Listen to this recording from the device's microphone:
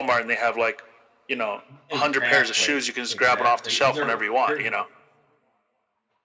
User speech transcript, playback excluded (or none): E exactly, exactly, and there there